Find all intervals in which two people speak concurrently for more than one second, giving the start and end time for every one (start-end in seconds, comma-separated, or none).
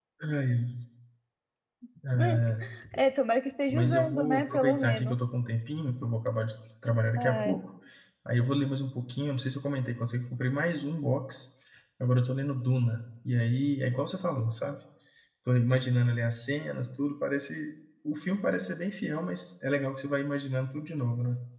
3.7-5.2